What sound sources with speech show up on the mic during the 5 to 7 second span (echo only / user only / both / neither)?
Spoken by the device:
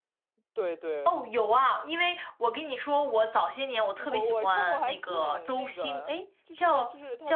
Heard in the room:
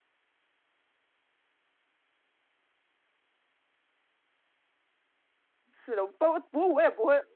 user only